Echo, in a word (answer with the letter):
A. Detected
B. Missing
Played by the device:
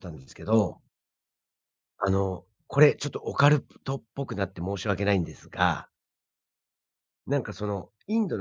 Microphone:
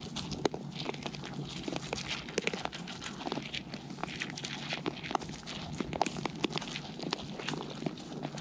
B